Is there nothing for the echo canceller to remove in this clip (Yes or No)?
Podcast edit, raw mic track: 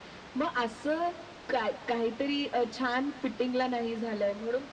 No